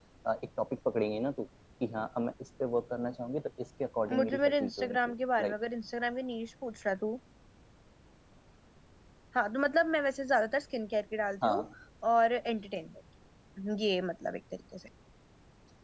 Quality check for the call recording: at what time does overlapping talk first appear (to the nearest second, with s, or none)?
4 s